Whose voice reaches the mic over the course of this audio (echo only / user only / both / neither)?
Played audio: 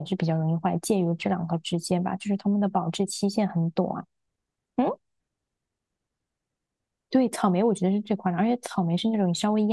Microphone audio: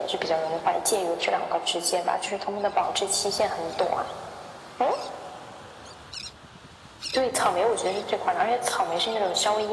echo only